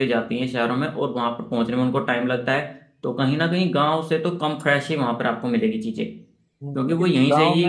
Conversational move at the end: taking over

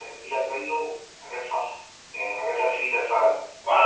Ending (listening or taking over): taking over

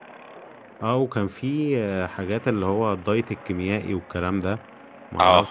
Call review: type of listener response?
listening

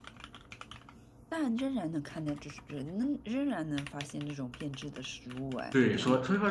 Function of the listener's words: taking over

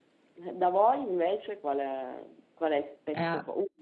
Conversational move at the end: listening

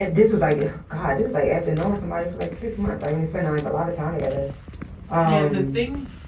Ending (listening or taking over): taking over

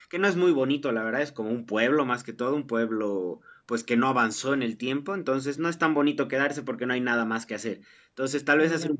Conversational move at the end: listening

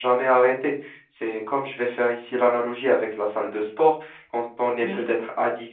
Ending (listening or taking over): listening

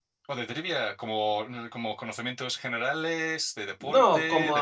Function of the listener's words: taking over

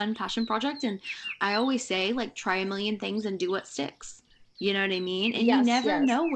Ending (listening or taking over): listening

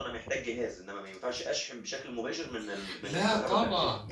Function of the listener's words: taking over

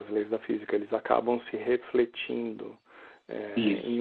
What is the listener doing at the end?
listening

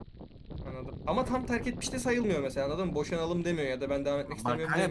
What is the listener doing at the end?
taking over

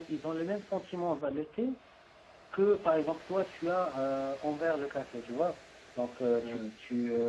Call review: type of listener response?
listening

